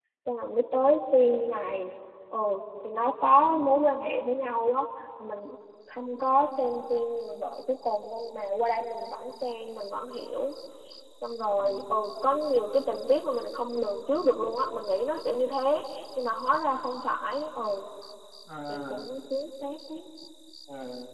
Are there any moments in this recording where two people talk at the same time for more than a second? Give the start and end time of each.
none

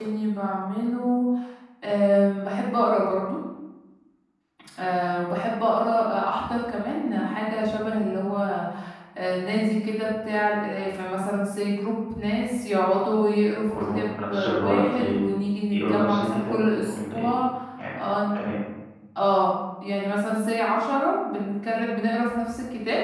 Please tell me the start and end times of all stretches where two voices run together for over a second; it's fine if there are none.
13.7-15.0, 15.7-17.3

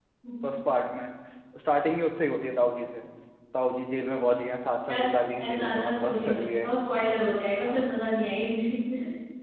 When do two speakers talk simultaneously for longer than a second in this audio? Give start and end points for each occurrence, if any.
5.4-6.7

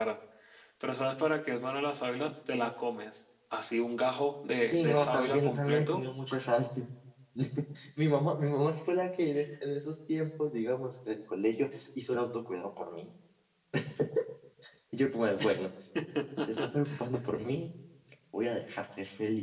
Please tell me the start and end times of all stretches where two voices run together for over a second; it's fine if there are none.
4.6-6.0

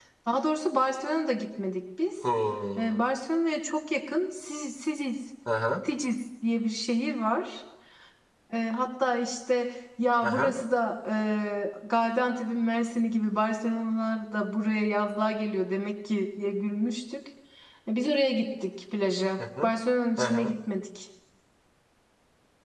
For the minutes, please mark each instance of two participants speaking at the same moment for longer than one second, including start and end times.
none

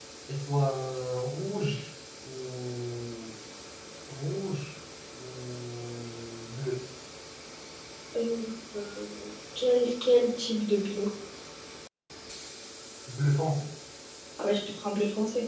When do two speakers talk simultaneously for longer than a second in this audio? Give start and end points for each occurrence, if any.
none

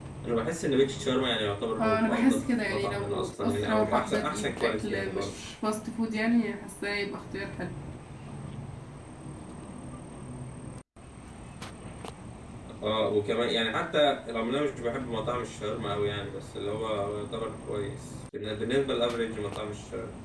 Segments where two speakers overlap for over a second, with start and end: 1.8-5.4

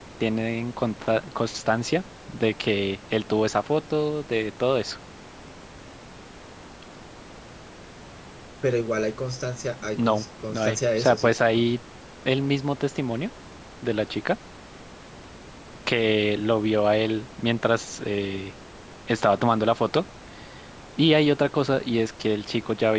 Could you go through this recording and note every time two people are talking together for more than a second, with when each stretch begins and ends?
10.0-11.3

